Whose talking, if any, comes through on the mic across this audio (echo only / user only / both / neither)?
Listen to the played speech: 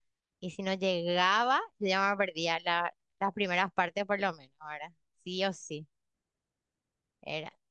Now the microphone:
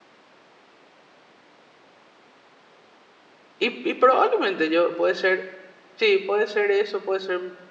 user only